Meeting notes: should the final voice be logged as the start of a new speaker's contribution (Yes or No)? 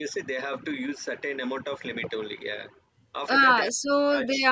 Yes